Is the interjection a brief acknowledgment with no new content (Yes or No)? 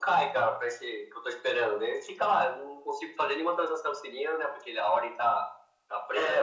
No